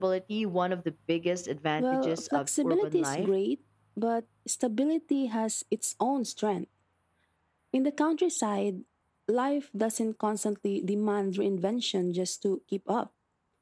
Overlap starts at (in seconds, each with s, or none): 1.8 s